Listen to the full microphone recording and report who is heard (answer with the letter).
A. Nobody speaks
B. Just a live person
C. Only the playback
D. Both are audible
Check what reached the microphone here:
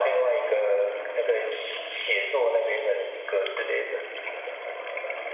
C